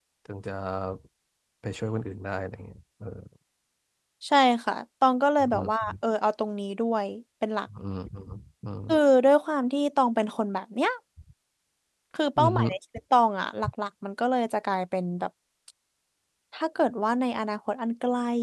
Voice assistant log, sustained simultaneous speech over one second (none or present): none